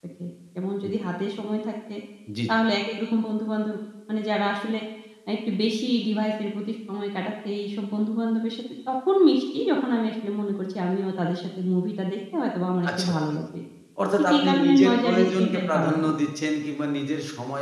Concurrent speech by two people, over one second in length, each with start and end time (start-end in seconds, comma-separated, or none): 14.2-16.1